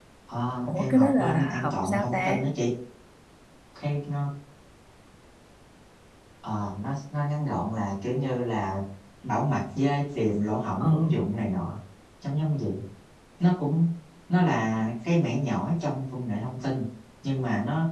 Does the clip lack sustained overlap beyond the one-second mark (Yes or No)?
No